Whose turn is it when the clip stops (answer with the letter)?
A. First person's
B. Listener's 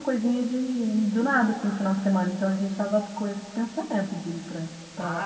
B